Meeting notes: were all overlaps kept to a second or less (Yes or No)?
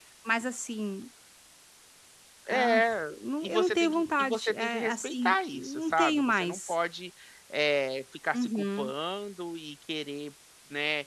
No